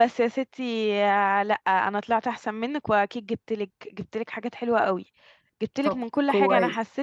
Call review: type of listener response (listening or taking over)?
listening